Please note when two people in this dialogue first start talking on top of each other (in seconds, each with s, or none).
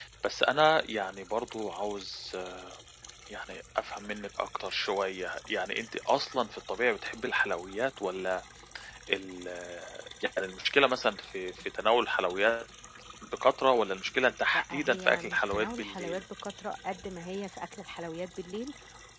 14.5 s